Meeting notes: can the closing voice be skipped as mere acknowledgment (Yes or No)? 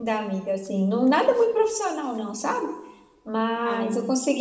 Yes